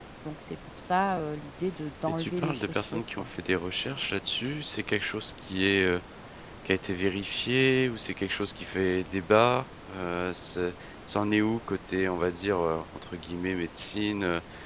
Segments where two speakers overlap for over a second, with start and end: 2.1-3.3

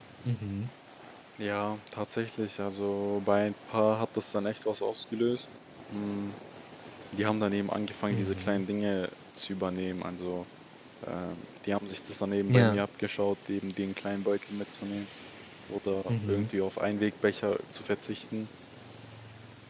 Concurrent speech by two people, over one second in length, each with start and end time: none

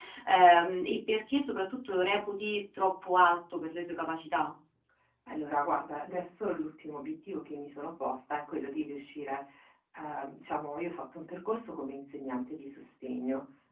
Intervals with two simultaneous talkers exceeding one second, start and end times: none

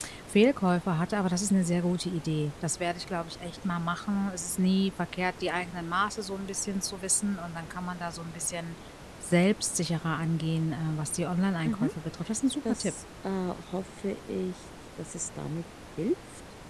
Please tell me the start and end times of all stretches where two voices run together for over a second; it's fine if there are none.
none

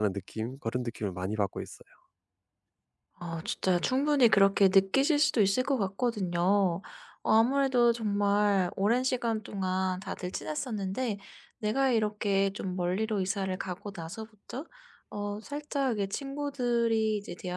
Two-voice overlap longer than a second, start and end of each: none

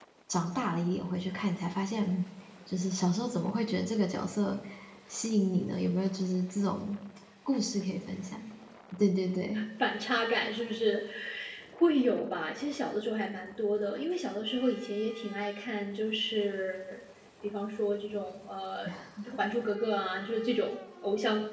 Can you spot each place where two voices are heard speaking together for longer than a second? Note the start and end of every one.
none

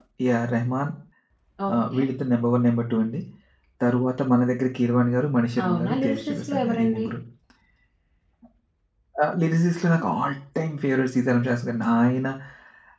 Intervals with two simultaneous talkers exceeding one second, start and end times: 5.6-7.1

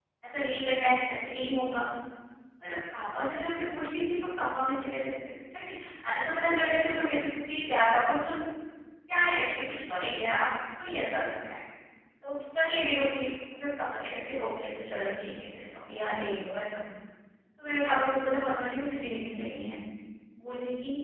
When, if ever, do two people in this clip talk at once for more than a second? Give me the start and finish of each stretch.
none

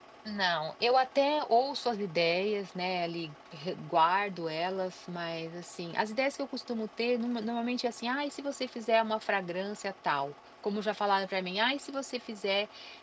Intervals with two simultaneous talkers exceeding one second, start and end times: none

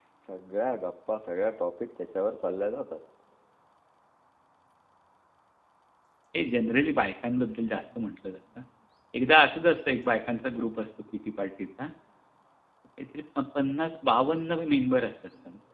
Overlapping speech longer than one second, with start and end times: none

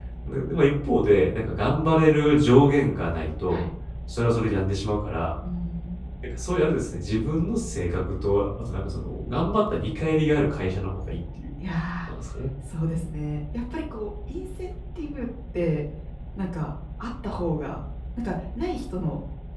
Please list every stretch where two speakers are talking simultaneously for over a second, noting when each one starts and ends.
none

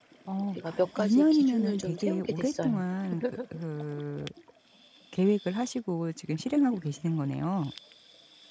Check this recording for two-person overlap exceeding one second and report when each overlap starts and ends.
1.0-2.8

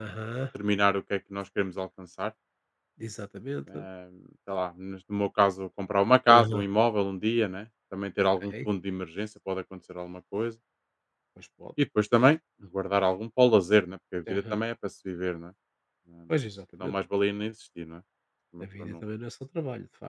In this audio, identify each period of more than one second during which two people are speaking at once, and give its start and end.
none

